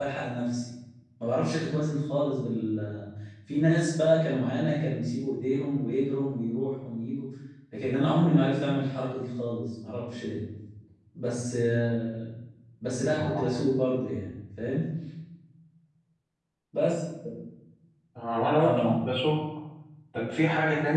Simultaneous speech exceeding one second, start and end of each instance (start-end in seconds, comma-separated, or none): none